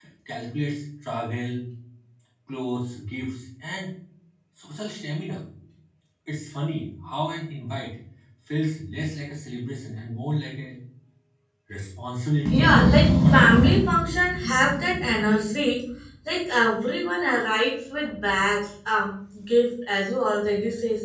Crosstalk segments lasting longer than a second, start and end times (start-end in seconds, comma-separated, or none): 12.5-13.7